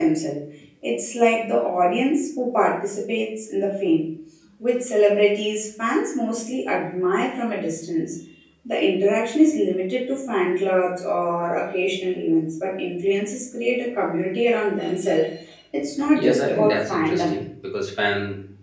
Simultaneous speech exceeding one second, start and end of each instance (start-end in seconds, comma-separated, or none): 16.1-17.4